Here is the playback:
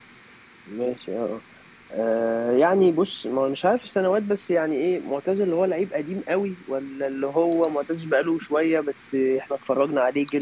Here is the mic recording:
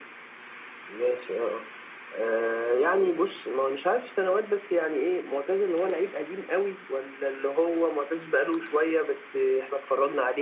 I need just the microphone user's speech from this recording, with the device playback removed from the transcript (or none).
none